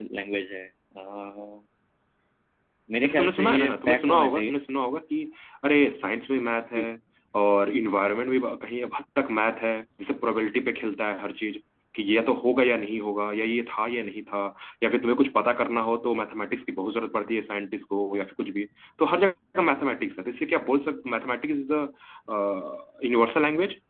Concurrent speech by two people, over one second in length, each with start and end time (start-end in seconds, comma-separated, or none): 3.0-4.5